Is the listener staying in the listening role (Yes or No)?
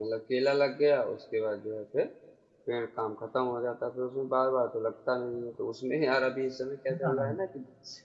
Yes